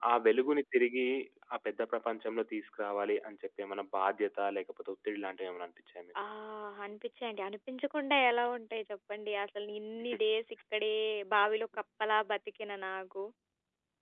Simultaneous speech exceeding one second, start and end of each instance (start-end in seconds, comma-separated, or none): none